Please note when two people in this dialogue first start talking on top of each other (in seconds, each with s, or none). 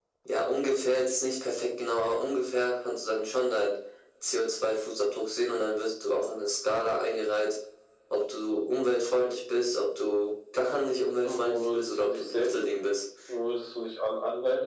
11.2 s